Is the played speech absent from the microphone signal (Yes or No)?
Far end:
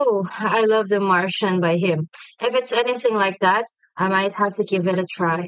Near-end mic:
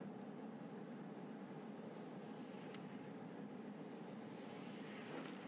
Yes